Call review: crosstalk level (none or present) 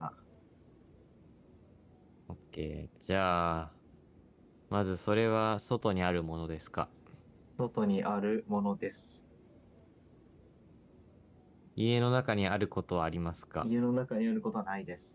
none